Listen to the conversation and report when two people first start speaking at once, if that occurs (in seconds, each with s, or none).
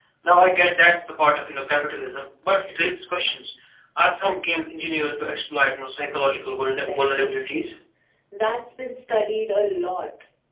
6.2 s